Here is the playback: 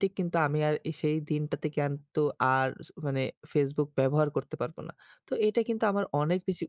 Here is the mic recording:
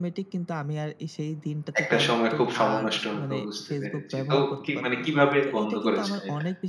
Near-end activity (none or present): present